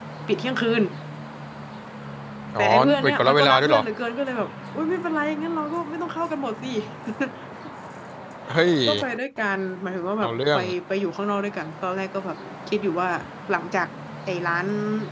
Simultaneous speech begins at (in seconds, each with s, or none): 2.6 s